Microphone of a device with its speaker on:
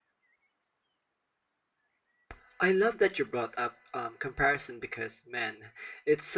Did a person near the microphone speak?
Yes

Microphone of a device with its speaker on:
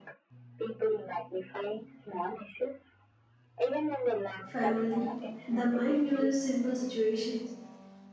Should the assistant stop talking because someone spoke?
Yes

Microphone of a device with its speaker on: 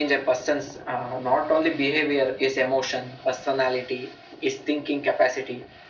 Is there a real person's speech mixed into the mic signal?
No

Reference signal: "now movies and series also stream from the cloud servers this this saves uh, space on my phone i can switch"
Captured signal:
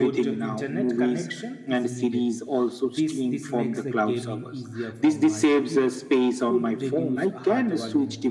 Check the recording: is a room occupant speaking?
Yes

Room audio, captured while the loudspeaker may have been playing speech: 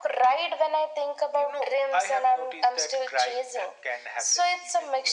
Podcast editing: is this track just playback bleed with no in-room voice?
Yes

